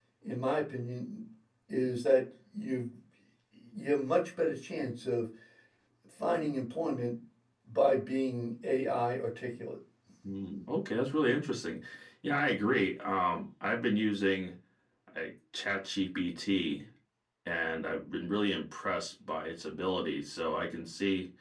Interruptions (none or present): none